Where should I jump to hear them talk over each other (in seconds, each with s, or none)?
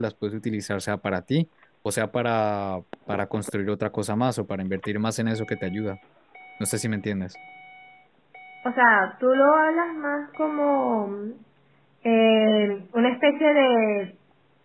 none